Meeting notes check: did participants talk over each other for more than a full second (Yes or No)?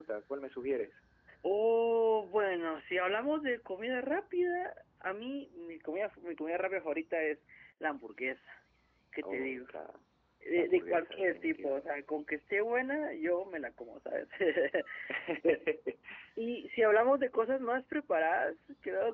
Yes